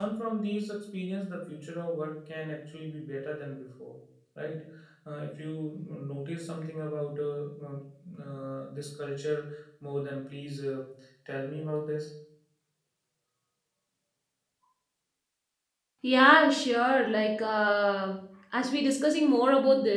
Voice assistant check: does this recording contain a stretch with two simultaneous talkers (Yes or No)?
No